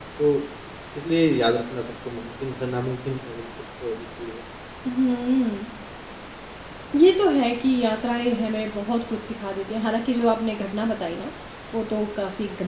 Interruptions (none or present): none